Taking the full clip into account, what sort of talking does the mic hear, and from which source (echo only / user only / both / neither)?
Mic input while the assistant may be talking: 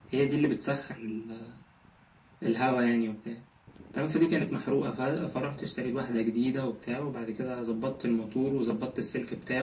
echo only